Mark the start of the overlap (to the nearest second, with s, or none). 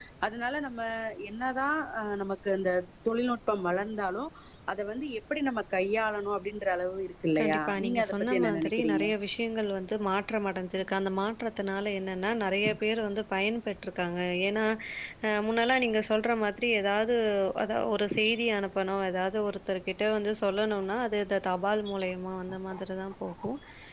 7 s